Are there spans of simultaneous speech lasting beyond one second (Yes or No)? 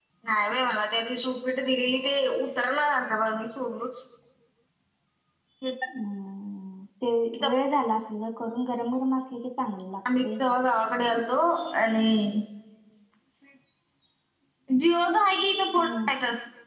No